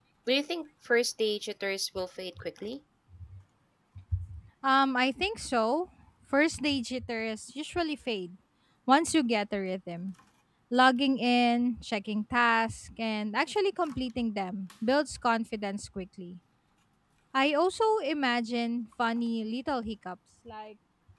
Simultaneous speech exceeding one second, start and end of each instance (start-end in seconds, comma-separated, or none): none